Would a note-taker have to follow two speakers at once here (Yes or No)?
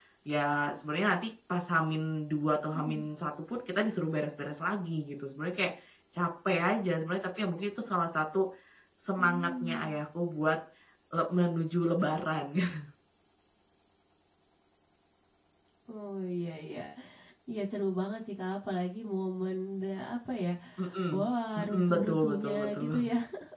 Yes